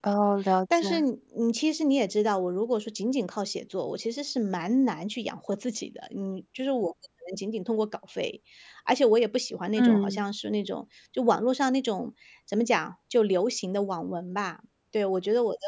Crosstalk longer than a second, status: none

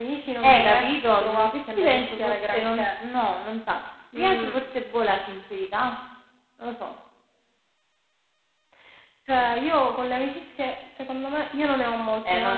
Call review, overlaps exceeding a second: present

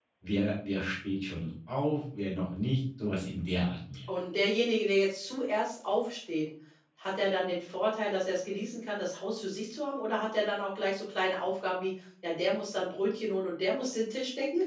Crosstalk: none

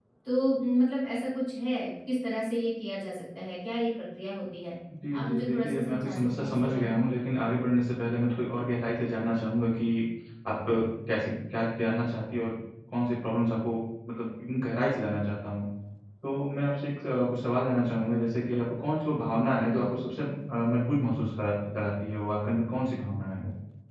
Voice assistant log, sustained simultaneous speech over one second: present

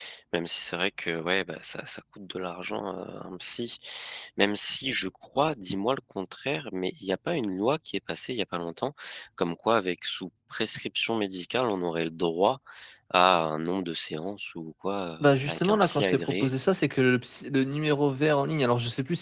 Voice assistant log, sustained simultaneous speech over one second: present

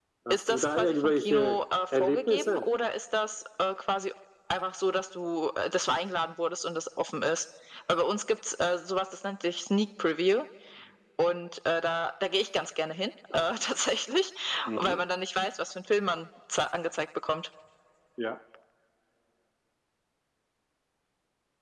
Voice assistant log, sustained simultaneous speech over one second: present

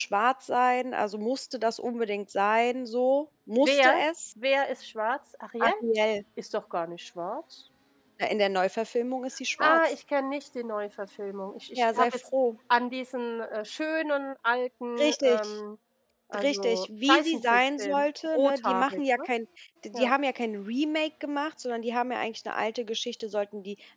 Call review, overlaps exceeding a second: present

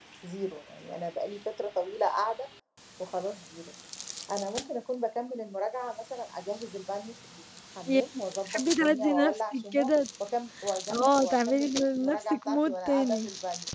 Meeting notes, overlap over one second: present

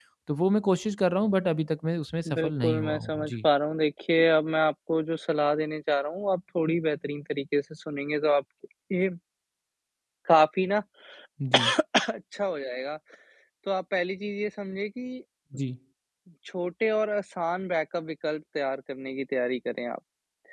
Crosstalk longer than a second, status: present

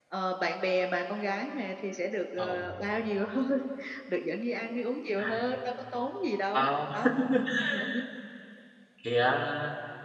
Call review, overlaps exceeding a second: none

